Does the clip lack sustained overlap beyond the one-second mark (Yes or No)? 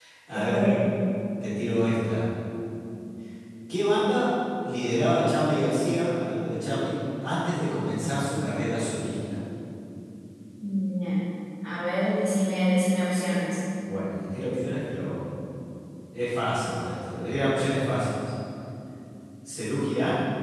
Yes